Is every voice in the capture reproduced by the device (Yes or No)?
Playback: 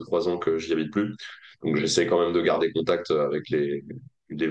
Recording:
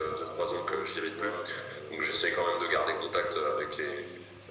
No